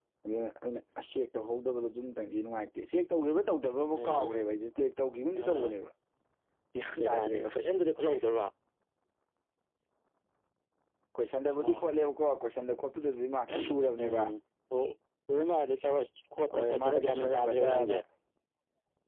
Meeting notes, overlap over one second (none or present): present